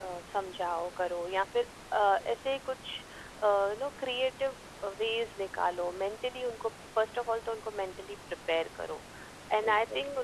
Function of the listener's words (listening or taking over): listening